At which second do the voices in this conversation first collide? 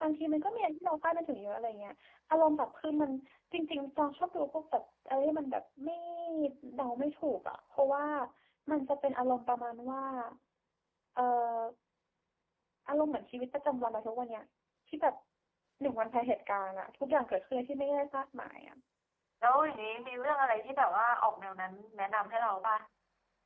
none

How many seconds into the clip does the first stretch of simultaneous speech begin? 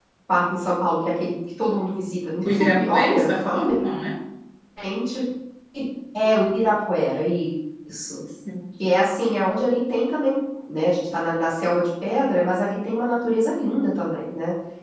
2.4 s

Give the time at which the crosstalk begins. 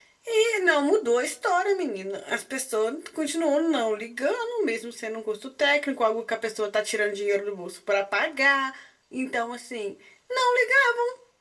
none

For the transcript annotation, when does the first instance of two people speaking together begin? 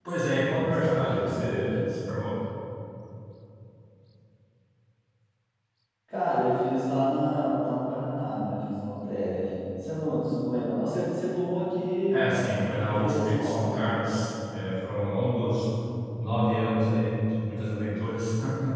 0.6 s

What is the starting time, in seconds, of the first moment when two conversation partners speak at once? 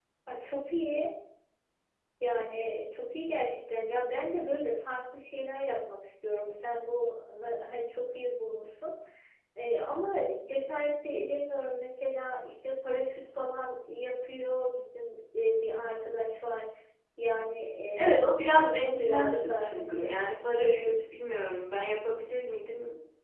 18.0 s

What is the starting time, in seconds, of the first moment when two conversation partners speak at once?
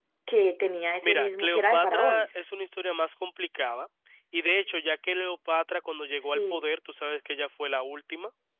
1.0 s

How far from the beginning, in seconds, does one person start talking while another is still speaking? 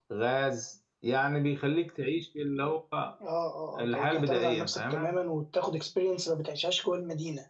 3.8 s

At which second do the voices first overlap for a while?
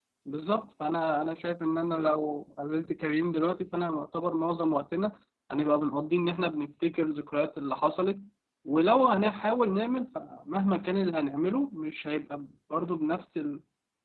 none

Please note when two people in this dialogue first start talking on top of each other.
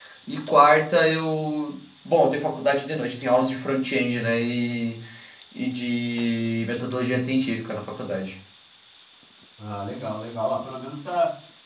none

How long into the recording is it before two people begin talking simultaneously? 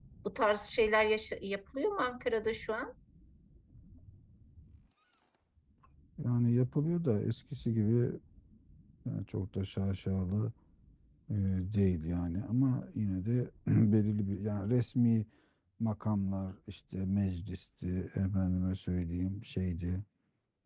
none

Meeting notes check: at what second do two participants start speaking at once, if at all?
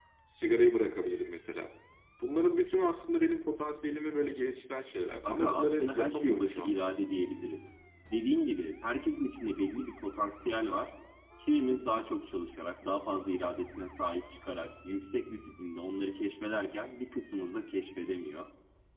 5.2 s

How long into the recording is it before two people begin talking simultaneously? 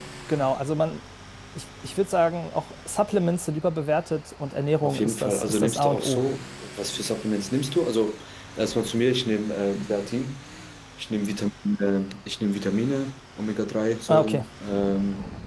4.8 s

